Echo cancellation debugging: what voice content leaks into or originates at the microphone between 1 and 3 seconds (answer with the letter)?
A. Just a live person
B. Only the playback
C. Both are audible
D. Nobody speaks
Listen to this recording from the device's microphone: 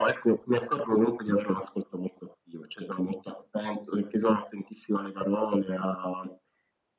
B